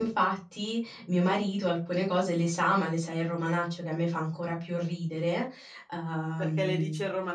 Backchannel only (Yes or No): No